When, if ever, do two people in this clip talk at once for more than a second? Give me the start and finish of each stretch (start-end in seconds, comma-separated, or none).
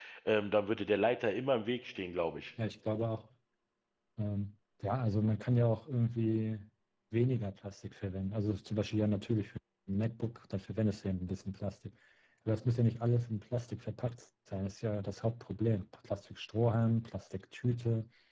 none